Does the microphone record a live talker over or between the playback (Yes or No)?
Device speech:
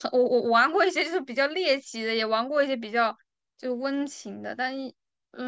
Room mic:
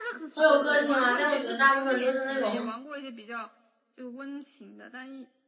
Yes